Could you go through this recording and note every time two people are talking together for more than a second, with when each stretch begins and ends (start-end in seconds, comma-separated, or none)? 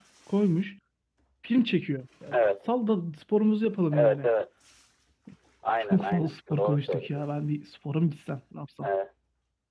5.9-7.2